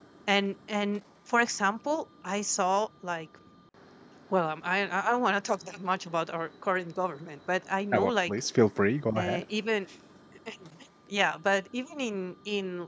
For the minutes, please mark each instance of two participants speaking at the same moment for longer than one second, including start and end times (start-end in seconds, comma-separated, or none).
none